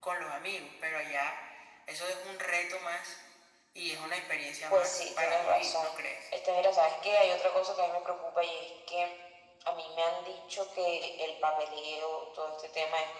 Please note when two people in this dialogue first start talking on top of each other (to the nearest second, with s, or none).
5 s